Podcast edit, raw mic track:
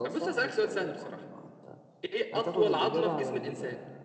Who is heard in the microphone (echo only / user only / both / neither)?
echo only